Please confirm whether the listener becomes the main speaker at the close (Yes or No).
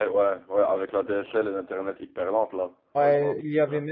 Yes